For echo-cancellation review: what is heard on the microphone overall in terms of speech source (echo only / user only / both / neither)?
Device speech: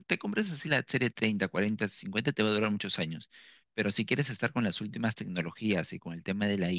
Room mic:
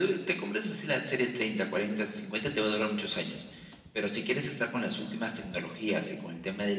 echo only